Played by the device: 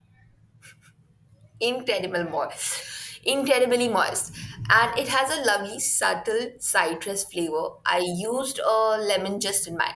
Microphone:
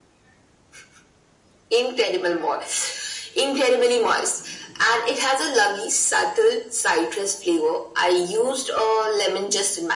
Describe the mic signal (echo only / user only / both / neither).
echo only